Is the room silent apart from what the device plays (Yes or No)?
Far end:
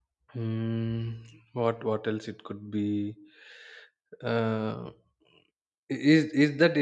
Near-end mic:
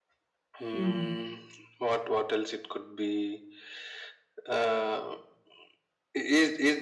No